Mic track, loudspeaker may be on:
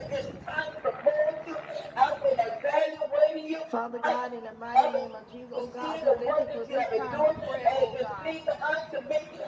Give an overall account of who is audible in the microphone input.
both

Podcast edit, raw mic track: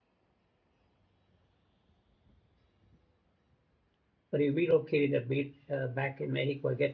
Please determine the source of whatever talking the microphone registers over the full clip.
user only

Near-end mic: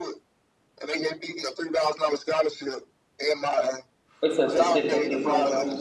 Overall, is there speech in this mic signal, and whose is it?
both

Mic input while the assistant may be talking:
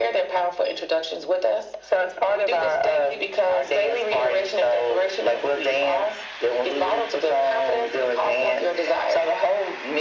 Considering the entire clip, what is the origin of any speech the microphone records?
echo only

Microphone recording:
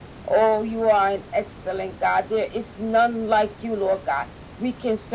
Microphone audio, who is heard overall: echo only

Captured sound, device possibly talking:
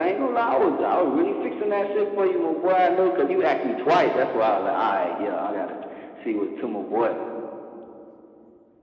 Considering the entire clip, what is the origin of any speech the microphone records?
echo only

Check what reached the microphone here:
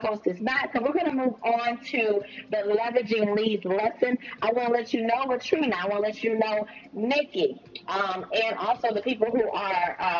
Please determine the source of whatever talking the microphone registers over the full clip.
echo only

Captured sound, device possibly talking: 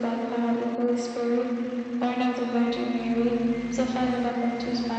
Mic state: echo only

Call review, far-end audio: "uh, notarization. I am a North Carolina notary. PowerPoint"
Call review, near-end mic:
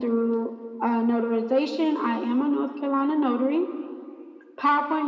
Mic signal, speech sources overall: echo only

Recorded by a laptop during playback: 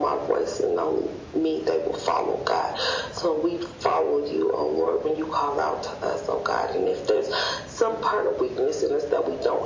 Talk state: echo only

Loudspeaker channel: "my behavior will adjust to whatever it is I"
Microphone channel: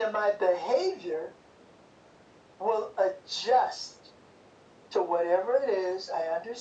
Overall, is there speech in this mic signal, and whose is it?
echo only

